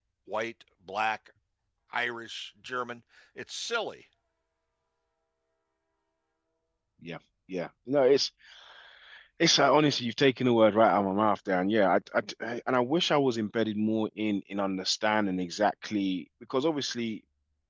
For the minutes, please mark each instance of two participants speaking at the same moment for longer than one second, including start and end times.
none

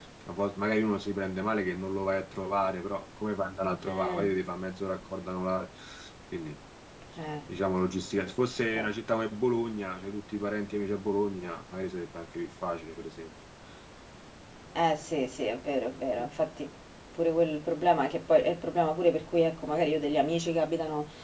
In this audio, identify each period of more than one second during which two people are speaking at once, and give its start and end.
none

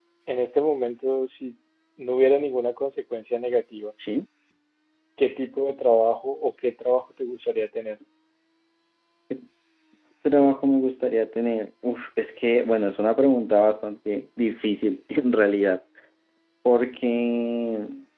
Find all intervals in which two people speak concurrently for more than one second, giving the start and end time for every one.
none

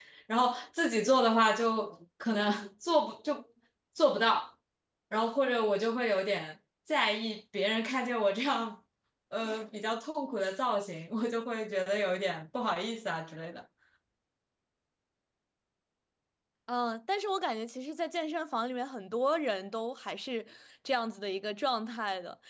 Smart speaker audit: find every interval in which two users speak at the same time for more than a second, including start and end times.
none

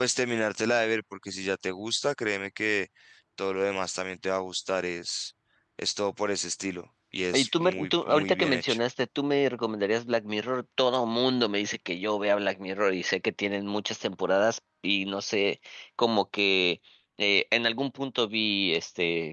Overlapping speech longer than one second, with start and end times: 7.3-8.8

